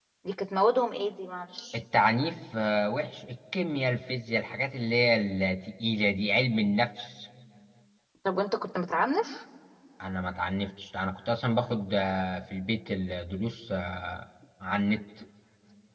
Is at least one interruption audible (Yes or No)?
No